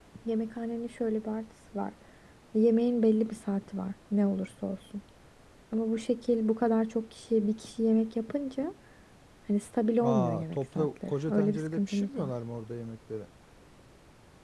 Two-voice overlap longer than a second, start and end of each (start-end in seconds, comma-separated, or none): 10.0-12.3